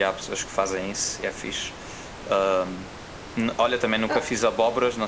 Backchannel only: Yes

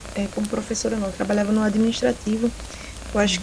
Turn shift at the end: No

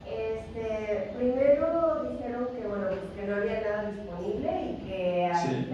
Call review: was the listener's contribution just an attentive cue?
Yes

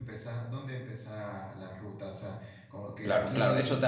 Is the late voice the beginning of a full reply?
Yes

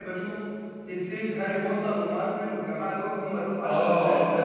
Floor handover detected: Yes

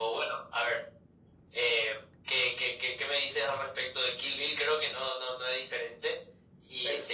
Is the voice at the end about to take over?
No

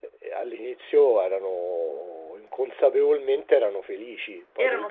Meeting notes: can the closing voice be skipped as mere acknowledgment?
No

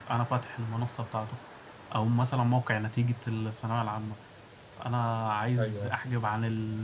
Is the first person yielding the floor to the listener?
No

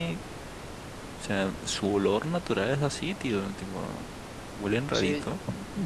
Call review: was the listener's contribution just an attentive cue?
No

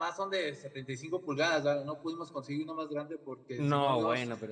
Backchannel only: No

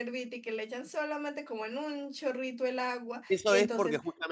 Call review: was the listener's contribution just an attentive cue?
No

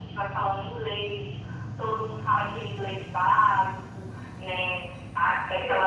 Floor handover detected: No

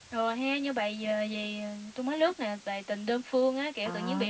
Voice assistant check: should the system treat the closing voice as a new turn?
No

